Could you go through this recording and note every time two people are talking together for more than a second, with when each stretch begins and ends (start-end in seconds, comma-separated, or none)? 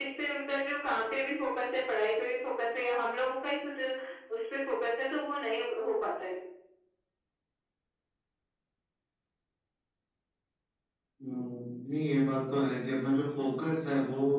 none